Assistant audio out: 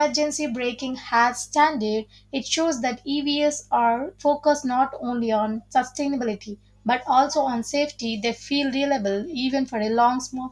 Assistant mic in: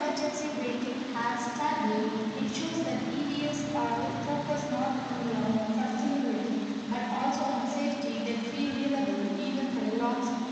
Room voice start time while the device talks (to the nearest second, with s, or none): none